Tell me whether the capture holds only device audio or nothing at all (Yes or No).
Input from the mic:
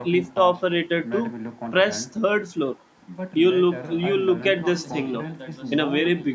No